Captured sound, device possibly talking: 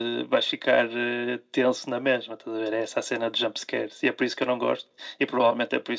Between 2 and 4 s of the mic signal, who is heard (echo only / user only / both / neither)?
echo only